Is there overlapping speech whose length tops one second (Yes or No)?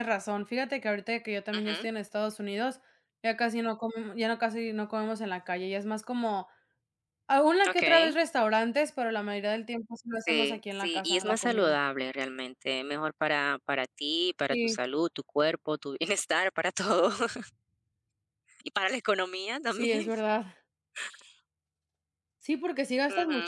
Yes